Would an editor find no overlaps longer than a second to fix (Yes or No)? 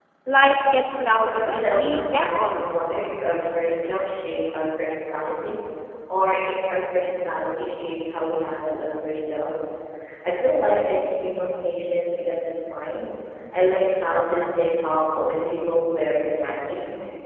No